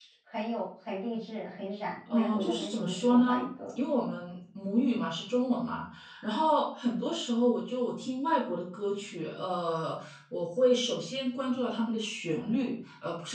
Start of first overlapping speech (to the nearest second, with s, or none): 2 s